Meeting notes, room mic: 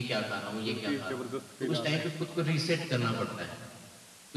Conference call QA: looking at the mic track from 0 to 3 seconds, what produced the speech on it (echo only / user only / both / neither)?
both